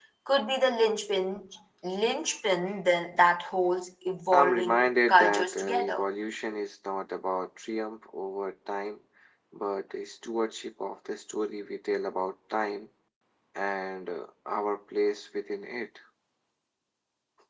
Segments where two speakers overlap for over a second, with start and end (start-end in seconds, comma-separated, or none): 4.3-6.1